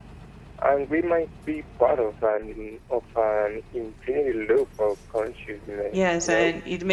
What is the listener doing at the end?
taking over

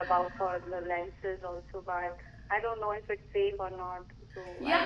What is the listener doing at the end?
taking over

